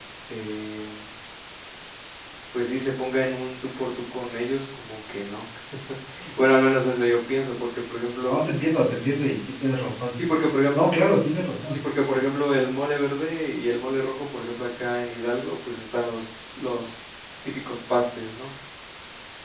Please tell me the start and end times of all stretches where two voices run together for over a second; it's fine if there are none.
none

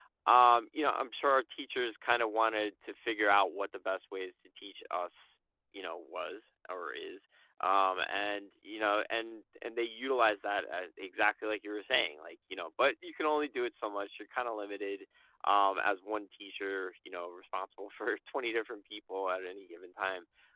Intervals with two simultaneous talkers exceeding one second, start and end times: none

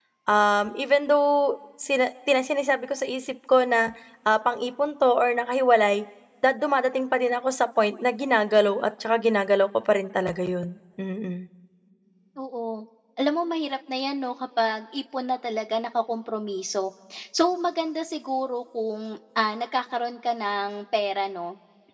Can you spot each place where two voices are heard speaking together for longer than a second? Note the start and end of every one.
none

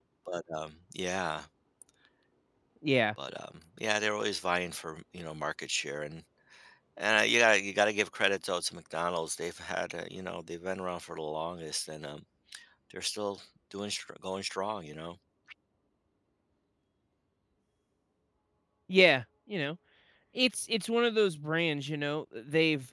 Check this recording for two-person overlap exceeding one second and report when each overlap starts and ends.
none

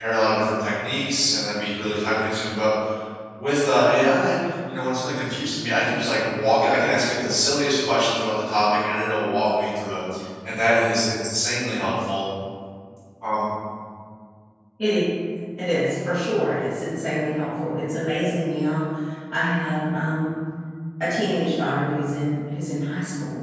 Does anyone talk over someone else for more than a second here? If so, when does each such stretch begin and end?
none

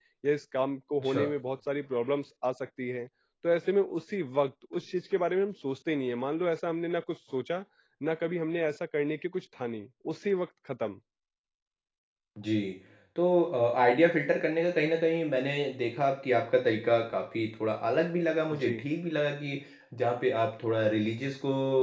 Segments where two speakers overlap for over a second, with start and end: none

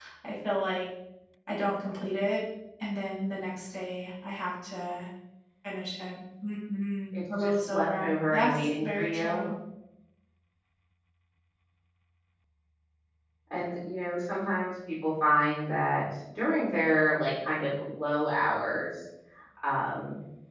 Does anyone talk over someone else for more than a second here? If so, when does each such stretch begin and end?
7.4-9.4

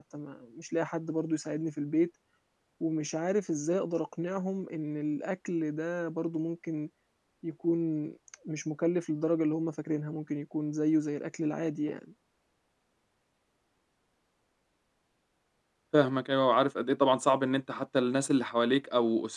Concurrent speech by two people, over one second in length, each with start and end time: none

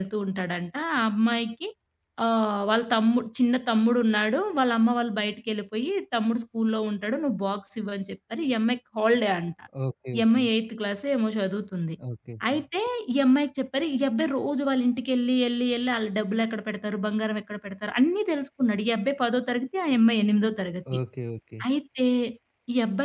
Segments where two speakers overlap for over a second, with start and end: none

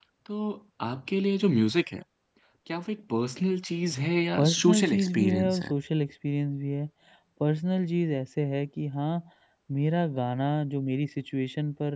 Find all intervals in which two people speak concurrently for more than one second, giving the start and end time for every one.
4.3-5.7

